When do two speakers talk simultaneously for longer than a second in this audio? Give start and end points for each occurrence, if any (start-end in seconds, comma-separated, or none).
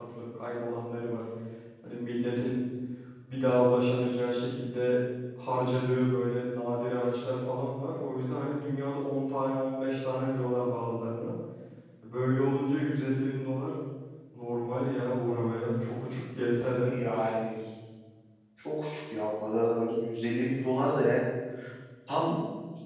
none